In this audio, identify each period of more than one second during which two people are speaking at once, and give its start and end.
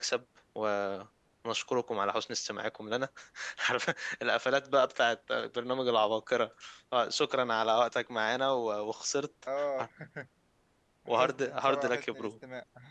11.1-12.3

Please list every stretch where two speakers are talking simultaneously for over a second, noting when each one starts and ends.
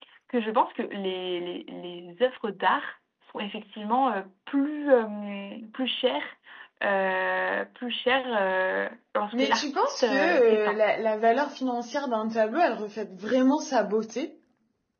9.3-10.8

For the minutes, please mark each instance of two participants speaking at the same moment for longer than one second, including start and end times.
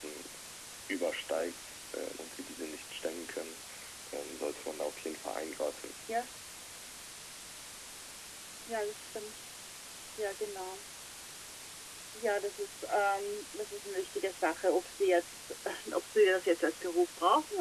none

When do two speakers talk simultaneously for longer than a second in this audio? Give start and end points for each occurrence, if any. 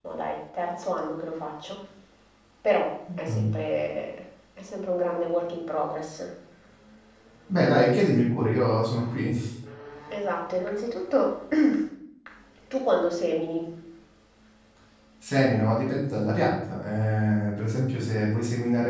none

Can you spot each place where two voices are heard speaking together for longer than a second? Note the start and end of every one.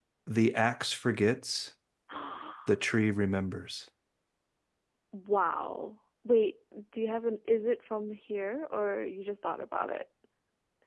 none

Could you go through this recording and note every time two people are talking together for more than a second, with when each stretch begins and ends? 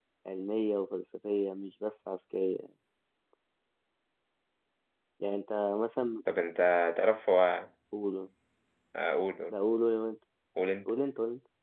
none

